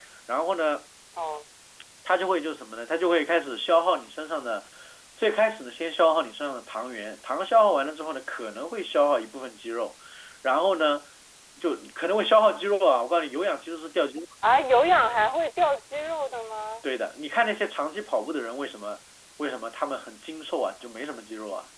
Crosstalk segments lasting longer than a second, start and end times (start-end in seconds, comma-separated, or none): none